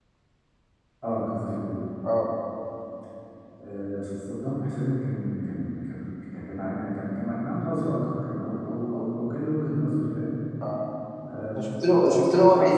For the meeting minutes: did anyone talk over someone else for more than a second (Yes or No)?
No